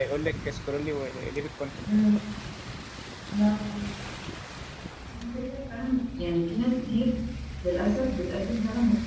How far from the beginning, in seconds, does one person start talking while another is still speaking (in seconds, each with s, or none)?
none